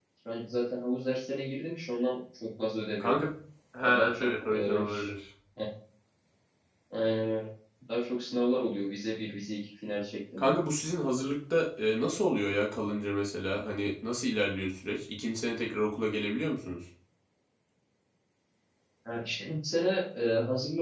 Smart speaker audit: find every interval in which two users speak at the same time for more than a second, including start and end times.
3.8-5.1

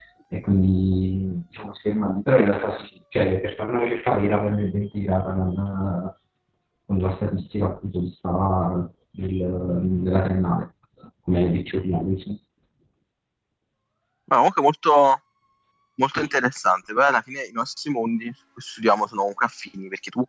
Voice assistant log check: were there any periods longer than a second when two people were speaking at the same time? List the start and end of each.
none

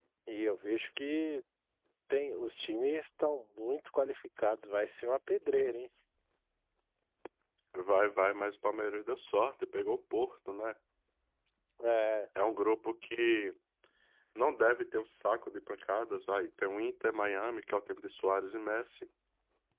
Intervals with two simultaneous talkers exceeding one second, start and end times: none

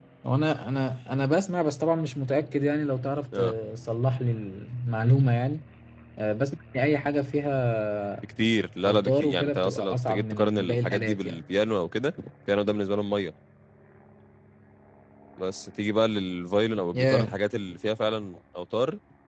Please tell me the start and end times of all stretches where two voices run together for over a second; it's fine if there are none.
8.8-11.4

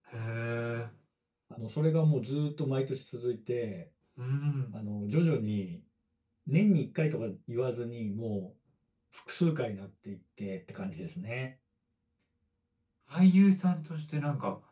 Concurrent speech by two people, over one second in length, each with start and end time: none

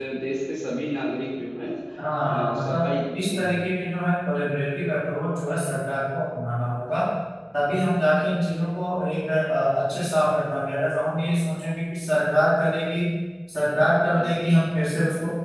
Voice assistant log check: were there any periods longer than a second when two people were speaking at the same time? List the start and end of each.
2.2-3.7

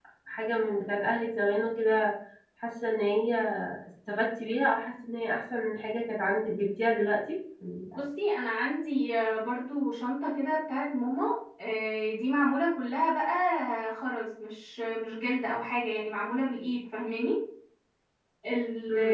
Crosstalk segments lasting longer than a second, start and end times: none

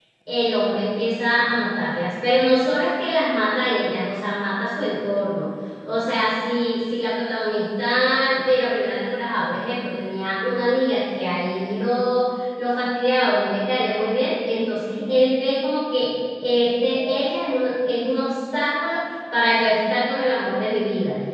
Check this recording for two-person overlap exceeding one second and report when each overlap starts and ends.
none

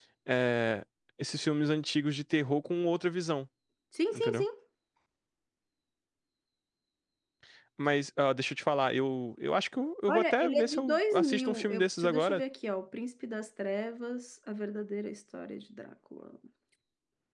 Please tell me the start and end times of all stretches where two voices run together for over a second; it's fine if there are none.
10.1-12.4

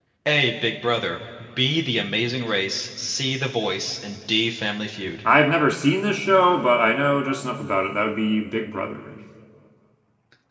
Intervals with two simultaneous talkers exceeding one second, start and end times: none

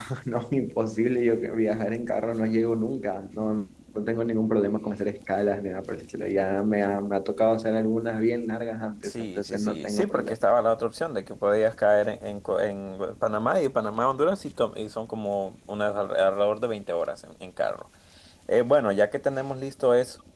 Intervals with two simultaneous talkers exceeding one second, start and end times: 9.0-10.4

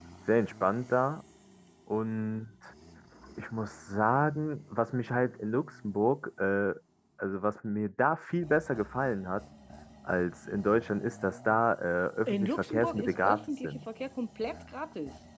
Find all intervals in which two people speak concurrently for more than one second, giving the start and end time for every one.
12.3-13.8

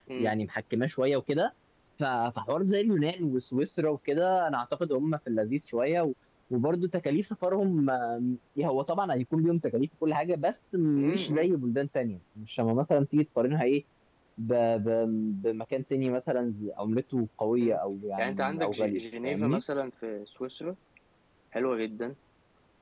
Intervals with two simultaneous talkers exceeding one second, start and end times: 18.2-19.6

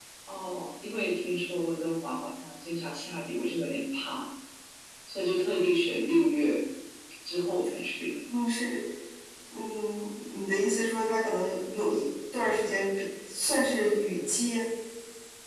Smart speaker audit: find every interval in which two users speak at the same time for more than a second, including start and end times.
none

